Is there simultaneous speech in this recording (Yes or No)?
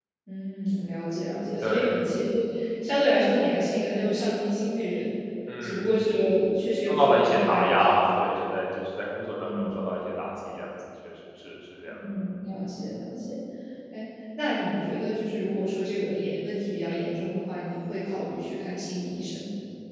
Yes